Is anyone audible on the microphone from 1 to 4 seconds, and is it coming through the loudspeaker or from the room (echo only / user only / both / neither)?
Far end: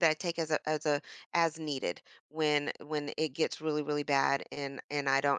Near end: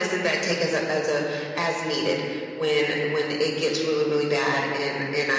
echo only